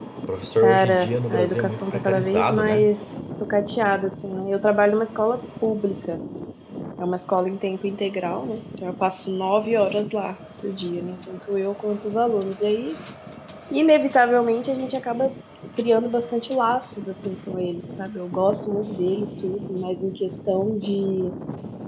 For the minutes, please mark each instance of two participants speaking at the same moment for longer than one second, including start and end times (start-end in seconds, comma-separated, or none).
0.6-2.9